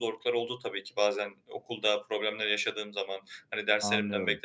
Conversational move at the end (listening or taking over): listening